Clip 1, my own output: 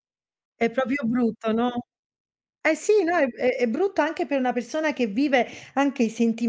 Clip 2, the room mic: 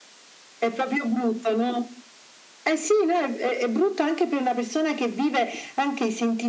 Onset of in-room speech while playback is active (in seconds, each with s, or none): none